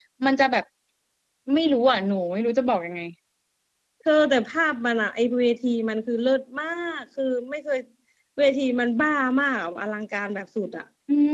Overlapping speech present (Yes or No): No